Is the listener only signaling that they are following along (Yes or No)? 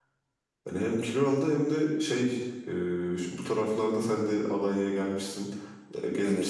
Yes